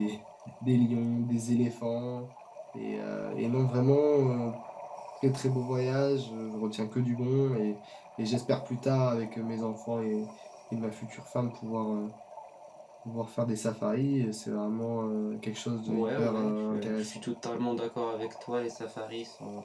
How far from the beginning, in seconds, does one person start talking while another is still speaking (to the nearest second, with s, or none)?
16 s